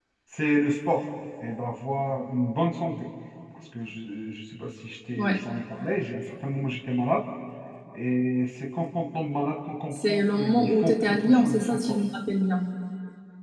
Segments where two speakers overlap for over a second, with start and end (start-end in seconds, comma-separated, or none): 9.9-12.0